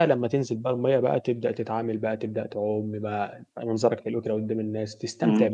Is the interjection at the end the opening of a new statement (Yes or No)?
Yes